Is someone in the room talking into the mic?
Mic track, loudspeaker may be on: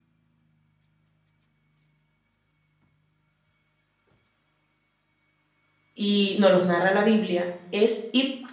Yes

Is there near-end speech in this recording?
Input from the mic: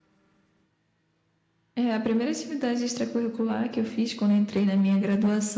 No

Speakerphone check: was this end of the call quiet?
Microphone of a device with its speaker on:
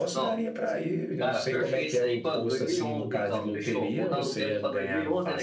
Yes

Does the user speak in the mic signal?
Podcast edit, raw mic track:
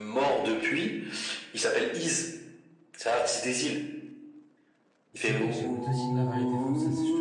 Yes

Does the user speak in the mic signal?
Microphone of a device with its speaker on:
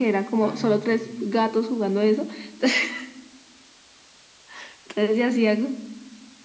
Yes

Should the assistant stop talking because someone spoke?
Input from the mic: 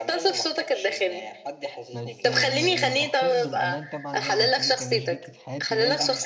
Yes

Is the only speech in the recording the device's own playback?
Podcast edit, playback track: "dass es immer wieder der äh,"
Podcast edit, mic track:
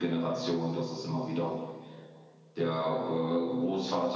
Yes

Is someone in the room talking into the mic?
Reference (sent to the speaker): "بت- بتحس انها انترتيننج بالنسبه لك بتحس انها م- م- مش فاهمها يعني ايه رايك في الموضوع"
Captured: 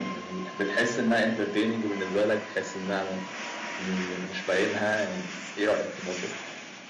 No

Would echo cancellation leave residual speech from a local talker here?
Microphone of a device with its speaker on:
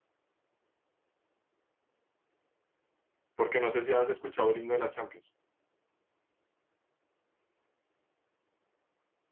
Yes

